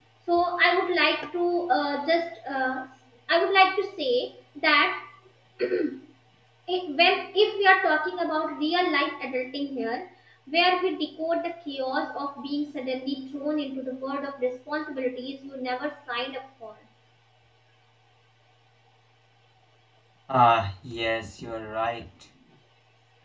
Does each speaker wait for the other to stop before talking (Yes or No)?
Yes